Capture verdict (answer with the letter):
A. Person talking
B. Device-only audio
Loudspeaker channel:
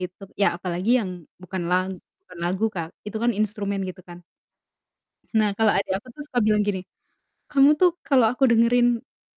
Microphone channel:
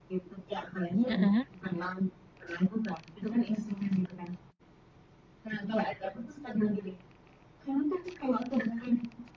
A